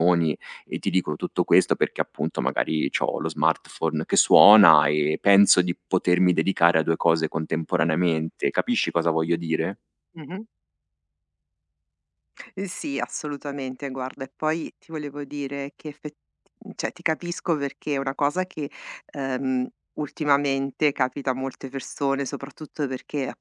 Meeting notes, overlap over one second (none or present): none